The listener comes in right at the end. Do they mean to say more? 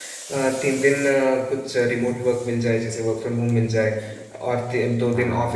No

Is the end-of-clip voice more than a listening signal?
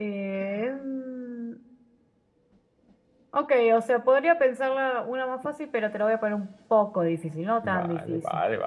Yes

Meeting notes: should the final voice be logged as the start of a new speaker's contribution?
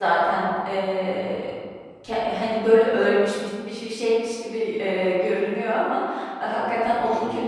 No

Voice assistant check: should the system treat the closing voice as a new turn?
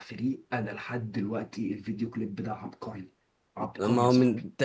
Yes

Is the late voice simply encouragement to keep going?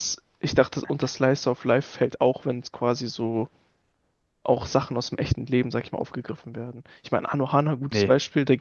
Yes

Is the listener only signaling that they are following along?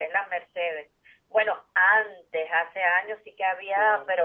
Yes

